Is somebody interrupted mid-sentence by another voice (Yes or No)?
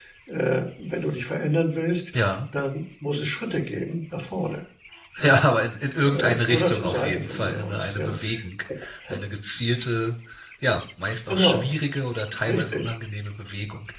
Yes